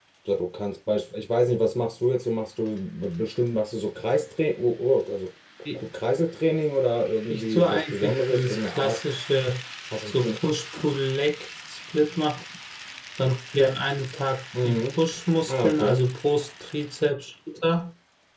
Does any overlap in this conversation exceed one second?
Yes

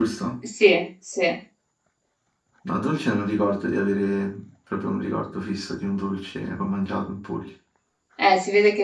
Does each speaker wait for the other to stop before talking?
Yes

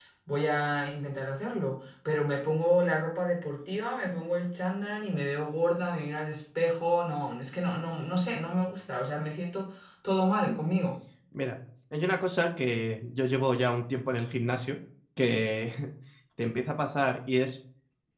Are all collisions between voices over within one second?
Yes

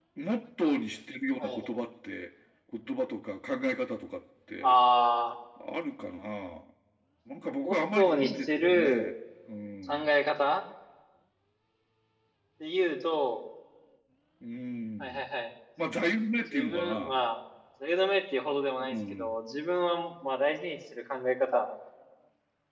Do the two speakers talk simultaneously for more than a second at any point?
Yes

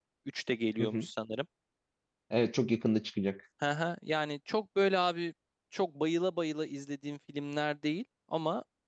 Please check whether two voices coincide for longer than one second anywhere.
No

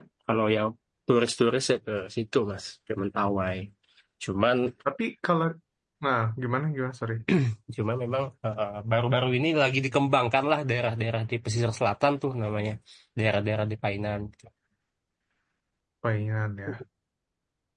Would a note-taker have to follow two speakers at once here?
No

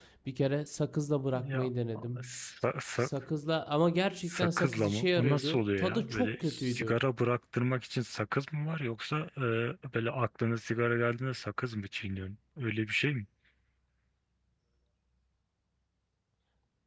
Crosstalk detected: Yes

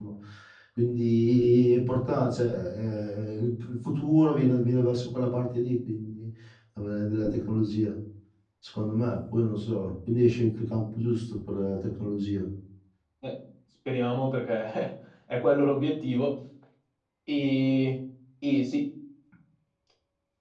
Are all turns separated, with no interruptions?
Yes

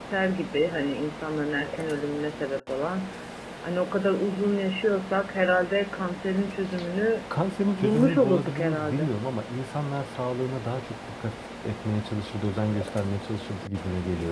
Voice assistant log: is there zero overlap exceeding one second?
No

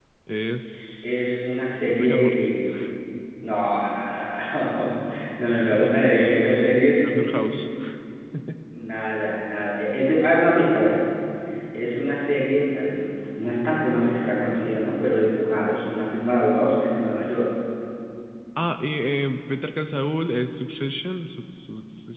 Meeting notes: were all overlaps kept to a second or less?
No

